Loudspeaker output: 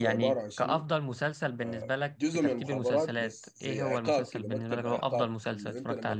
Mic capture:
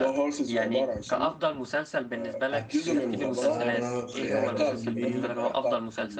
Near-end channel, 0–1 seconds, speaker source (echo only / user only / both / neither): echo only